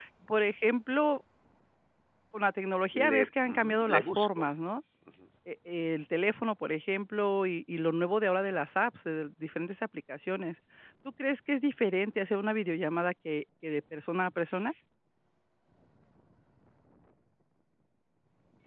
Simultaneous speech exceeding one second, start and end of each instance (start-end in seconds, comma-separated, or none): 3.1-4.5